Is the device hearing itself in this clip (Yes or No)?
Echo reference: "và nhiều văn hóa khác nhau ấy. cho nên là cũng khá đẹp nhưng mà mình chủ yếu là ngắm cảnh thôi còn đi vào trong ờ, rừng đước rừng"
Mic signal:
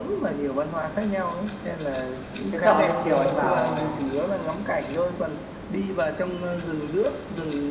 Yes